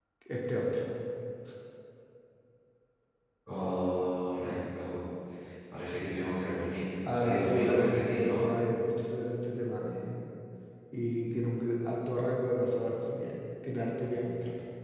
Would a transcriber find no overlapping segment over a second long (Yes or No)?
No